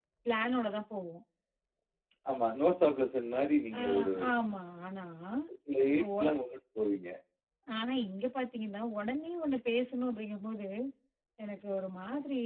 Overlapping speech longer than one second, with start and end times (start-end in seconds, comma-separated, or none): none